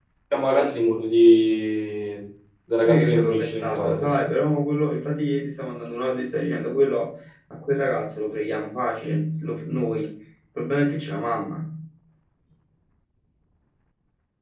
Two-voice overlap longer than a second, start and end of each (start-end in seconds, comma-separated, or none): 2.8-4.1